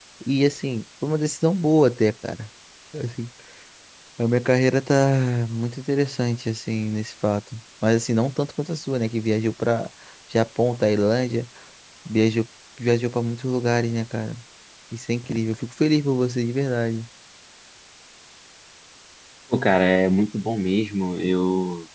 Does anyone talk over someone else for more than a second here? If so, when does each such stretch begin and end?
none

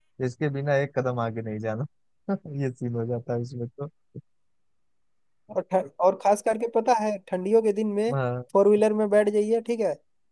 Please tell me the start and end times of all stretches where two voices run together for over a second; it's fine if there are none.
none

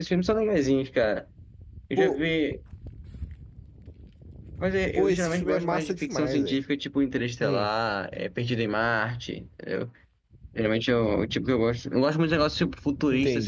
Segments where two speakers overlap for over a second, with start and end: 5.0-6.6

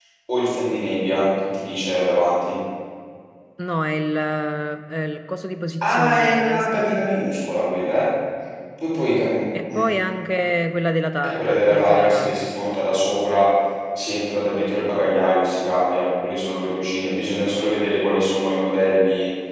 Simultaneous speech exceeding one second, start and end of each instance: 5.8-7.1, 11.2-12.5

